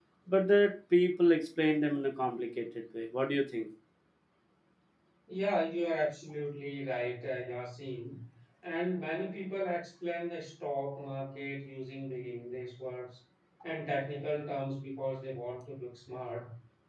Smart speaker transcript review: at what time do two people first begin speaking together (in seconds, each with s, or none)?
none